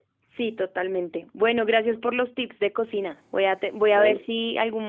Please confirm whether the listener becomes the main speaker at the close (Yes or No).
No